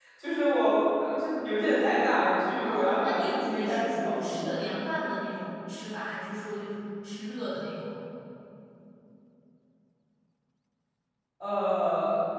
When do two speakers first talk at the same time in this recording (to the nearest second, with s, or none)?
3 s